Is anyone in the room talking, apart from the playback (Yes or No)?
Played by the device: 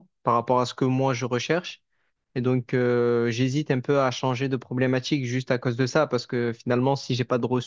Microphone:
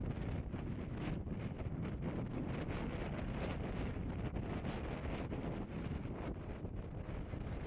No